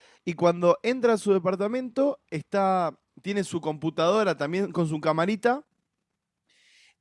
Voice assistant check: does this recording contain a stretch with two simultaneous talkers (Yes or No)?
No